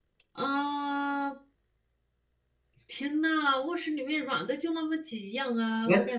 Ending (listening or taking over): taking over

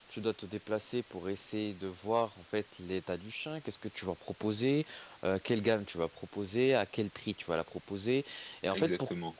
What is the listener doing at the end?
listening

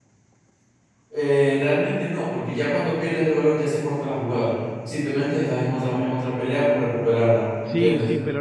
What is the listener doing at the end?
taking over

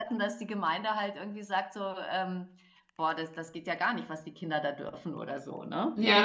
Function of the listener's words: taking over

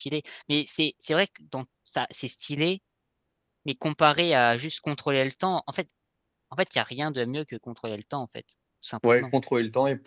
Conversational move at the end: taking over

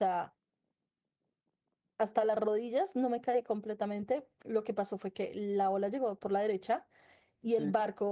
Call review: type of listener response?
listening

